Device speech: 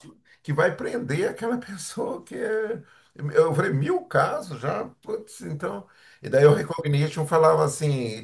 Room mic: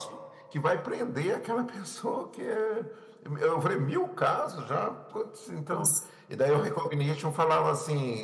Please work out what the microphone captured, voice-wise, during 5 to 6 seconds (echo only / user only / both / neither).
both